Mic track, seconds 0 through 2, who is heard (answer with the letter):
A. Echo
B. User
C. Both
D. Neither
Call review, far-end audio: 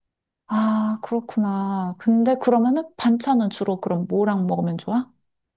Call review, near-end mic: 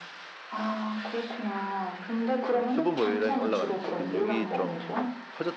A